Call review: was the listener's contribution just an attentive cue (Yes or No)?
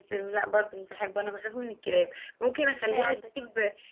Yes